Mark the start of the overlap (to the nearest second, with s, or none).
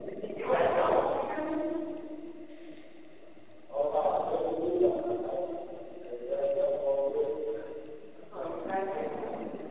none